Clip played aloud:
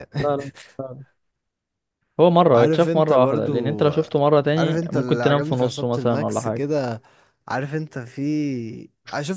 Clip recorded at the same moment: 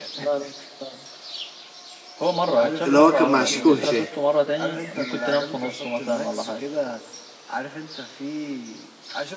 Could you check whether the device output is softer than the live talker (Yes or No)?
Yes